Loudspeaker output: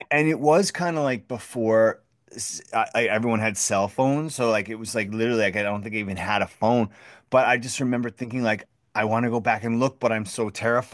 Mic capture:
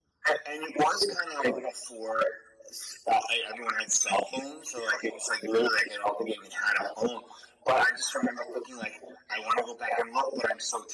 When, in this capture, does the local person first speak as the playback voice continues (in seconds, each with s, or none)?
none